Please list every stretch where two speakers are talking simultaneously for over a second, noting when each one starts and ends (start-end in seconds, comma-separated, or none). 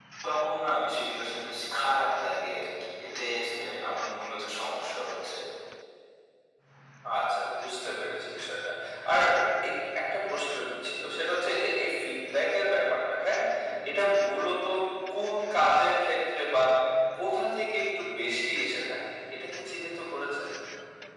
none